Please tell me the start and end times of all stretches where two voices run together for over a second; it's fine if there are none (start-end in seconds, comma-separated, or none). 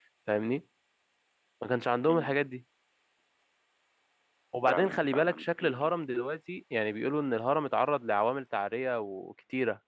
4.7-6.0